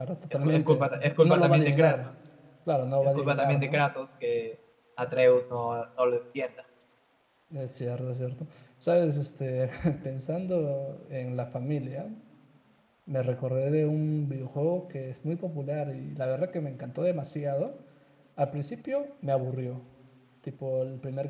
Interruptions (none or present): present